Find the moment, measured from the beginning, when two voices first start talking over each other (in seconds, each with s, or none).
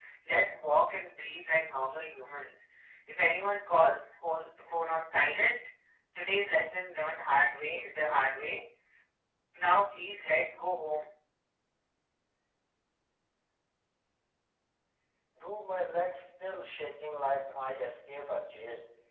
none